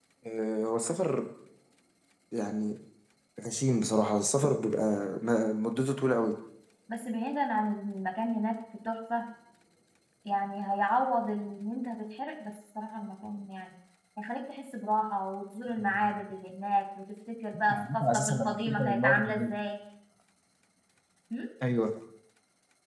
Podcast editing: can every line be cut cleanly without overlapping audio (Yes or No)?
No